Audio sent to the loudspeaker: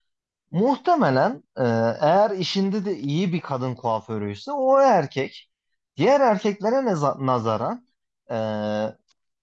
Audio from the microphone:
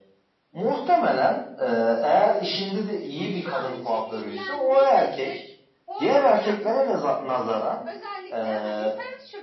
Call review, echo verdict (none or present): present